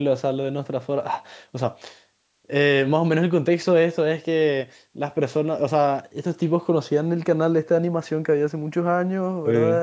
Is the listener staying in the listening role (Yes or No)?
Yes